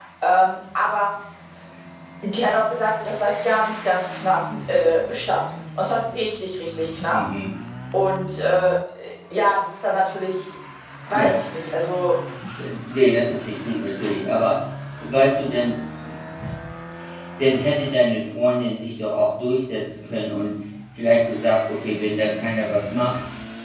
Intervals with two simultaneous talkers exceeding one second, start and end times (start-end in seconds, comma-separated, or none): none